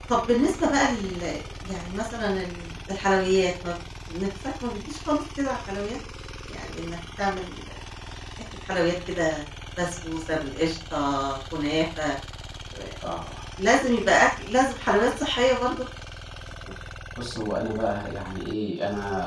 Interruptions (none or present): none